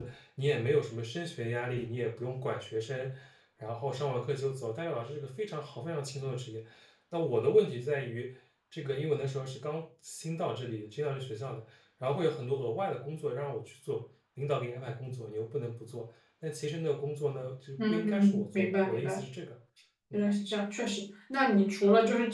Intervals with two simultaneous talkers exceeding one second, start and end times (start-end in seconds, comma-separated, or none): 17.8-19.2